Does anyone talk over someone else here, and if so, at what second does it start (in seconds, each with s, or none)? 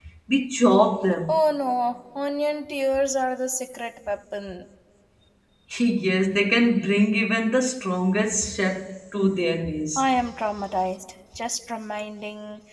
none